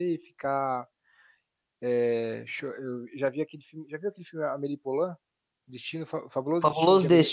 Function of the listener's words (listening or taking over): taking over